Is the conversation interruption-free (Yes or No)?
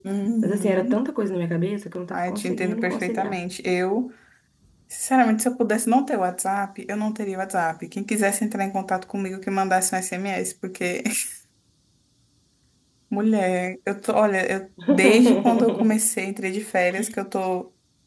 No